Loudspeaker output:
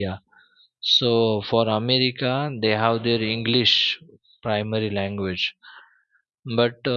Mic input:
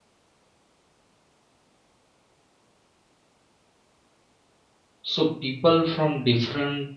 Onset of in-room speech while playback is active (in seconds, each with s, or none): 5.0 s